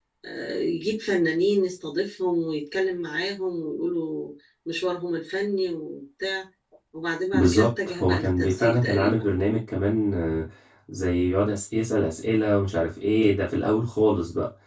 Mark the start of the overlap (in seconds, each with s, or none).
7.3 s